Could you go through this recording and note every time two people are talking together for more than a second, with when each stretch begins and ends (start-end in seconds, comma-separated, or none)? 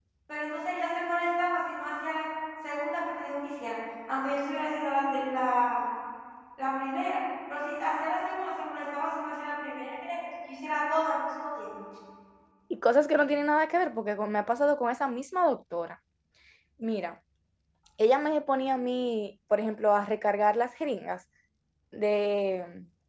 none